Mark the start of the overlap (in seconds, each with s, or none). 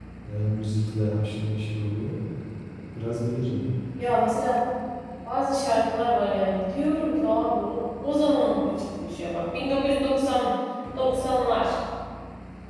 none